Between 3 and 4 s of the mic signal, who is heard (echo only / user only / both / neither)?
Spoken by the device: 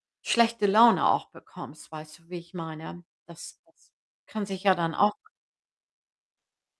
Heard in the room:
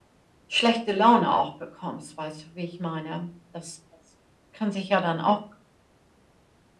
echo only